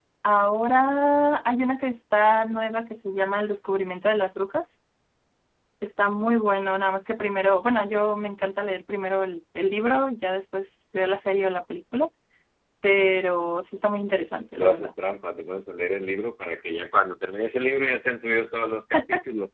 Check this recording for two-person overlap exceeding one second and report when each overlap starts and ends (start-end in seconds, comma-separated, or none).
none